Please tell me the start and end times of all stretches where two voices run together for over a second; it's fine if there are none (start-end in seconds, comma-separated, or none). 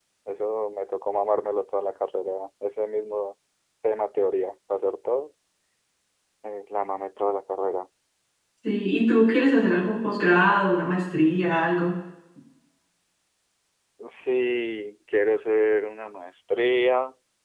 none